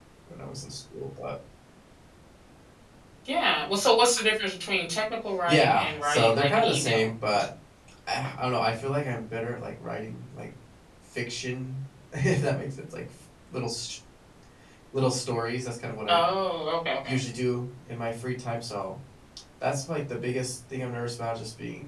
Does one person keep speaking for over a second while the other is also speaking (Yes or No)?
Yes